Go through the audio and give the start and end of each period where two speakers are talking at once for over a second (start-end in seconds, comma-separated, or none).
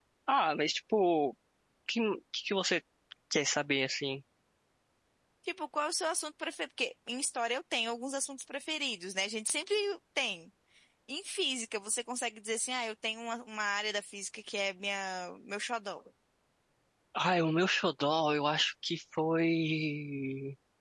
none